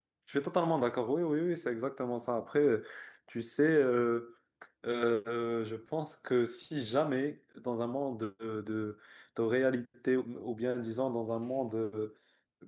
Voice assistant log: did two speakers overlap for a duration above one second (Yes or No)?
No